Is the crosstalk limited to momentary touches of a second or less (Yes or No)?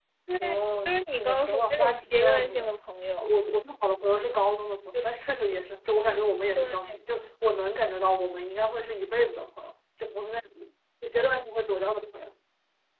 No